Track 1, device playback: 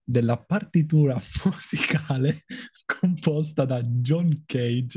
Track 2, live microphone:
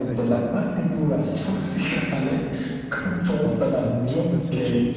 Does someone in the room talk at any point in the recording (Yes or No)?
Yes